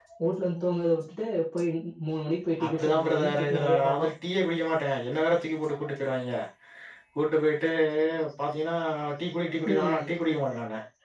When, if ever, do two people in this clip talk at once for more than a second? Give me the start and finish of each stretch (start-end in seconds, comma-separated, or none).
2.6-4.1